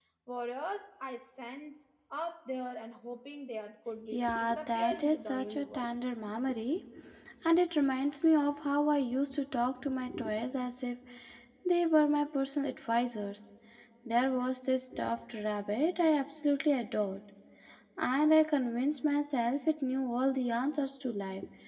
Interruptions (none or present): present